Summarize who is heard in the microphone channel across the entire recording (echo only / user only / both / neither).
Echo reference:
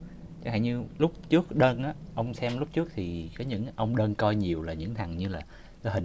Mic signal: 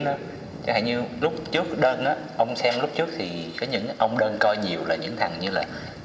echo only